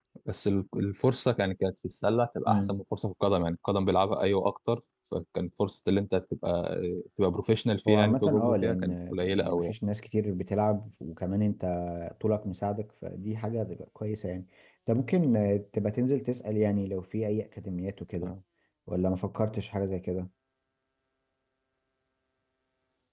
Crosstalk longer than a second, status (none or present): present